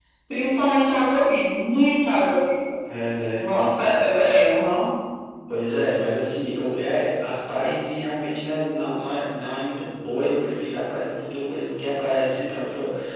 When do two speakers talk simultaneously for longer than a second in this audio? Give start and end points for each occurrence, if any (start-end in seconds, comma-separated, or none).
none